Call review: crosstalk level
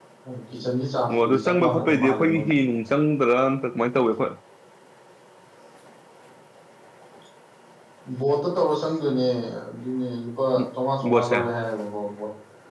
present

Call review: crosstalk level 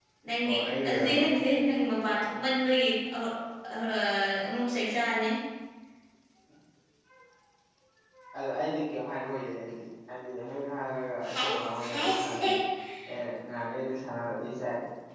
present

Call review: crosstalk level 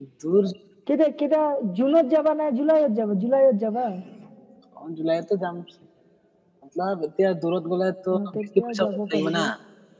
present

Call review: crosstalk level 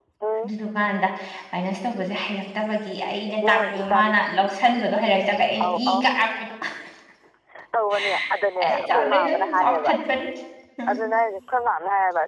present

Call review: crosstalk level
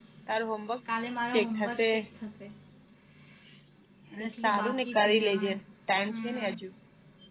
present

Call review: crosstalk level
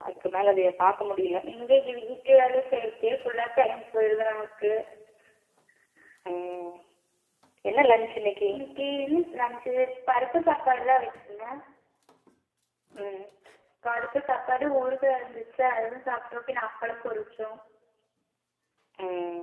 none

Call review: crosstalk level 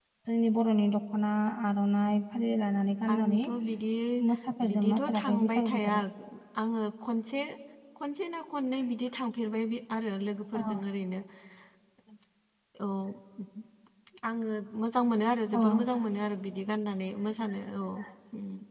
present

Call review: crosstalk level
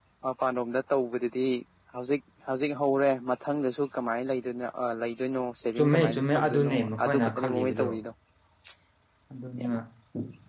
present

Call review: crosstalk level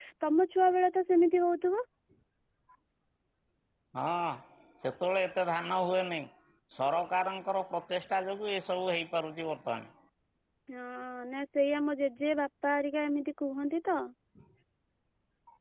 none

